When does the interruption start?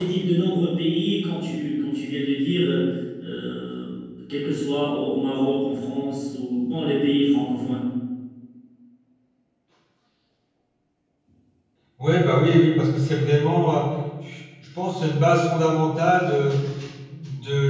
none

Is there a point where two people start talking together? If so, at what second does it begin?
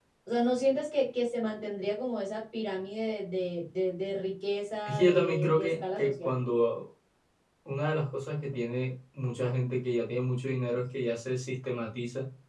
4.9 s

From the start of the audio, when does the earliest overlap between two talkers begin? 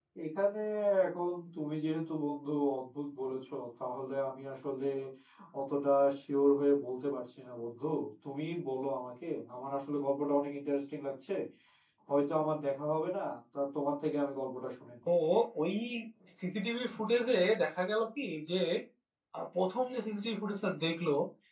none

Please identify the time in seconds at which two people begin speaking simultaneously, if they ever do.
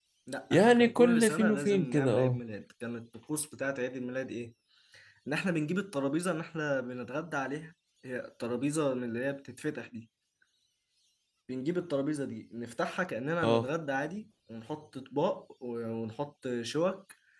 0.5 s

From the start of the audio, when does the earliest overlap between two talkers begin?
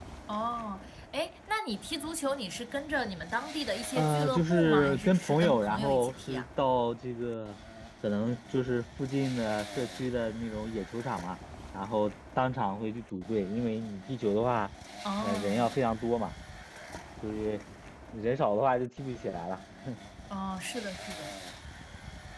4.0 s

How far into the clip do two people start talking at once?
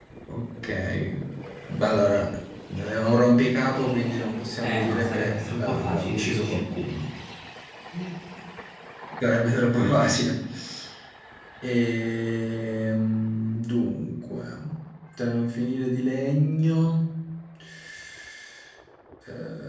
4.6 s

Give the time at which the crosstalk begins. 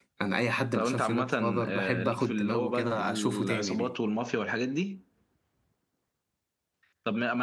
0.7 s

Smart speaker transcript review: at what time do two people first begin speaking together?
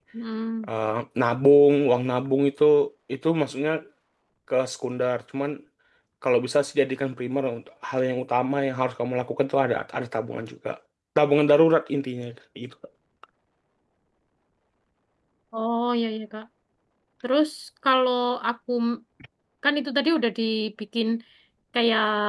none

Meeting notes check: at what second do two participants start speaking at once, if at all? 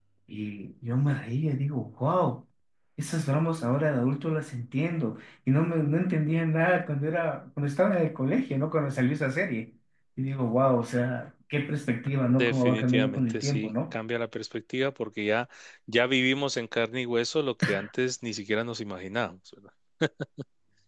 12.3 s

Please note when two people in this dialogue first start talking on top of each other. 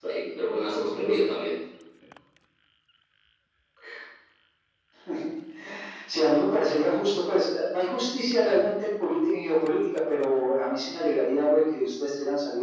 none

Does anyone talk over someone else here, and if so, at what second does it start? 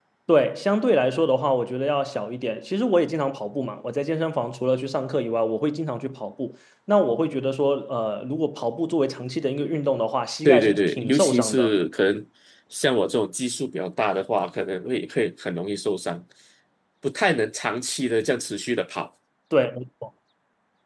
10.4 s

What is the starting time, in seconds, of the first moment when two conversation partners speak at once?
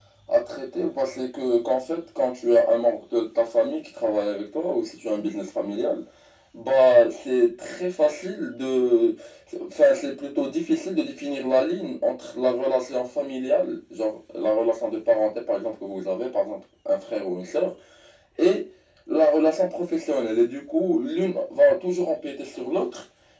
none

